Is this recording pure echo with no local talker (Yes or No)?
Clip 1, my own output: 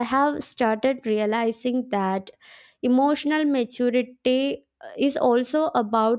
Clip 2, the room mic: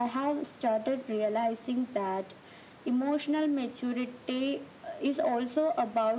Yes